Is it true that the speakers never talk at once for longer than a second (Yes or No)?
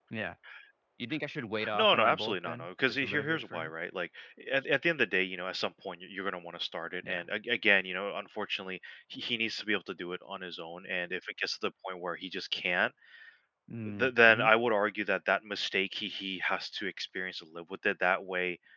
No